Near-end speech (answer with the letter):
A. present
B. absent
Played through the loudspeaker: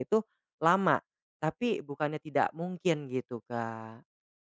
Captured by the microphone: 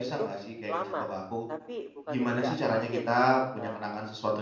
A